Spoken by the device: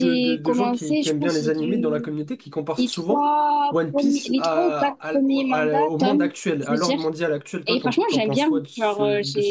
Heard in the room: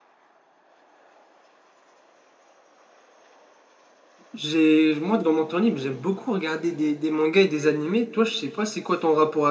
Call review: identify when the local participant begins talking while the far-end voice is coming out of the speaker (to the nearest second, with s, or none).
4 s